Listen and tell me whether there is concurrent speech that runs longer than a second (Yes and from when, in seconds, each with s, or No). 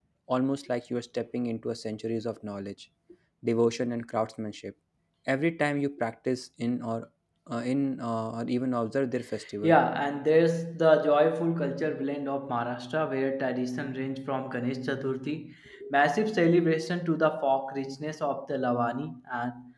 No